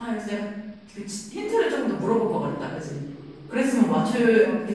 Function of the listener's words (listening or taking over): taking over